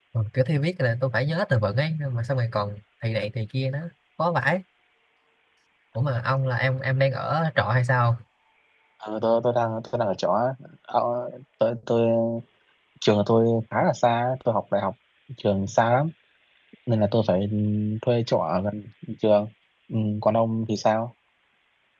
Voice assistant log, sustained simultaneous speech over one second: none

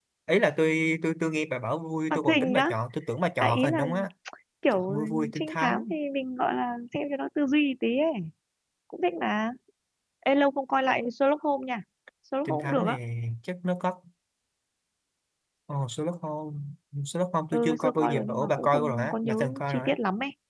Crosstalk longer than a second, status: present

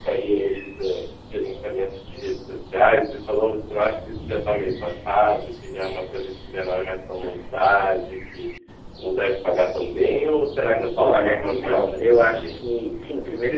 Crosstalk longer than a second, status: present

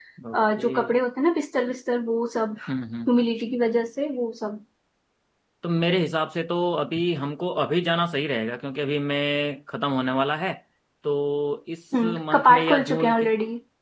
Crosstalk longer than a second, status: present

